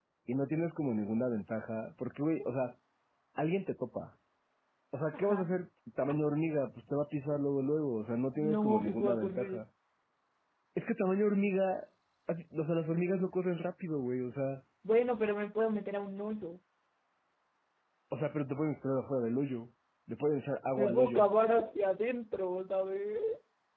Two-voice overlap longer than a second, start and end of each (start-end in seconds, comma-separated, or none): 8.3-9.6